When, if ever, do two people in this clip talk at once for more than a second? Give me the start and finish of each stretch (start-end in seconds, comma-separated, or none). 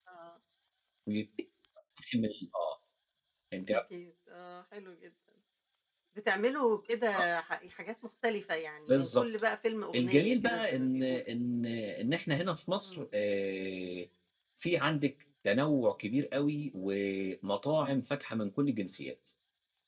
9.9-11.3